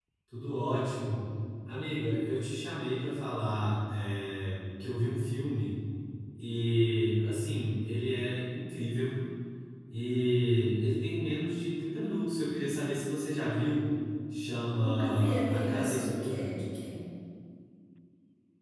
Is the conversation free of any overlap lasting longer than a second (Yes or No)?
No